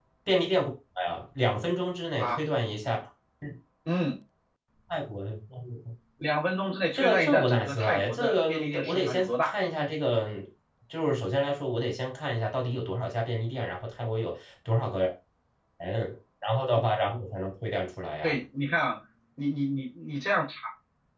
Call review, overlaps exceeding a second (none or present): present